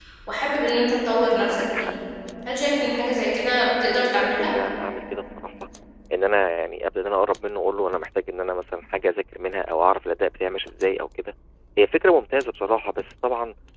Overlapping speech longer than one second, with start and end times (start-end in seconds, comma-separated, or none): none